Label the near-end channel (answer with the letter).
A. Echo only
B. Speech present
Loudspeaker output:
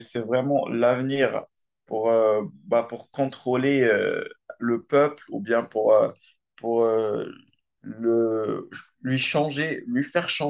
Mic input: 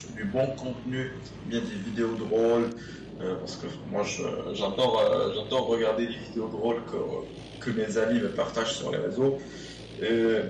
B